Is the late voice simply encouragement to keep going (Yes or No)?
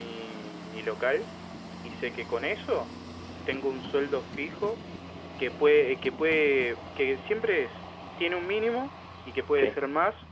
Yes